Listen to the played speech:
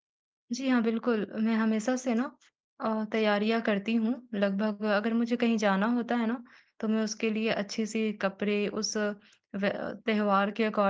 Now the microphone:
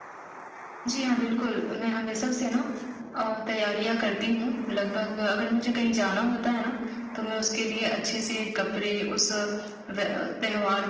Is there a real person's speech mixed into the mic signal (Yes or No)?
No